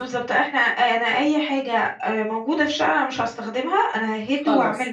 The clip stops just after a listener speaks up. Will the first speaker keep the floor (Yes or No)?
No